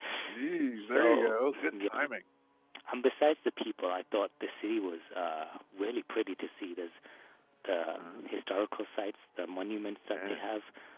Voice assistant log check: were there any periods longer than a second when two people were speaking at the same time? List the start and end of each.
0.8-2.1

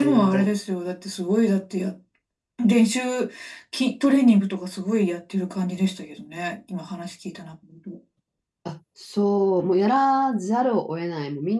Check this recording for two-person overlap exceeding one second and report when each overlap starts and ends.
none

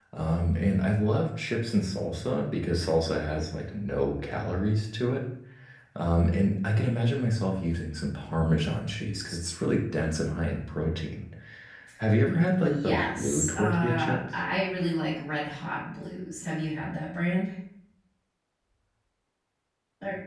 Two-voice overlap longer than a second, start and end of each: 12.6-14.3

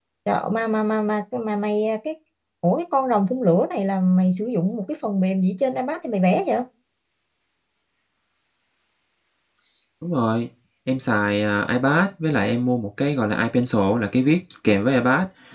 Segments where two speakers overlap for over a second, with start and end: none

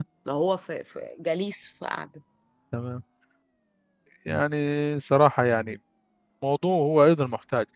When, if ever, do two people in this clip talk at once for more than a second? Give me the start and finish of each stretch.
none

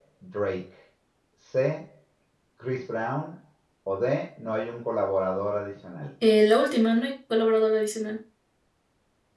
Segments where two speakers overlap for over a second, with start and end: none

